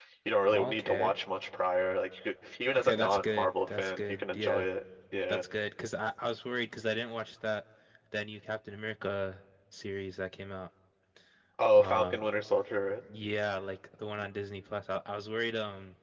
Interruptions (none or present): present